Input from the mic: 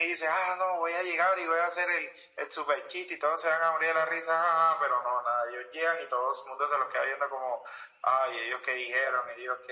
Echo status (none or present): present